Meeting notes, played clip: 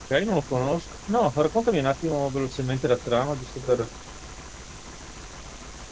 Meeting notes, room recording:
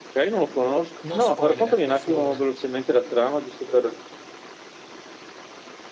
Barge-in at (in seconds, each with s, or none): 1.1 s